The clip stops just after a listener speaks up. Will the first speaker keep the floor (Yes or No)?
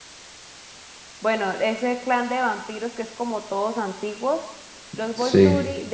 Yes